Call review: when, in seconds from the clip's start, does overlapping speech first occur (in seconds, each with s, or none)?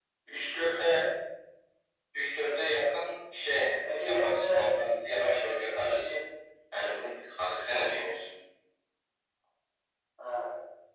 3.4 s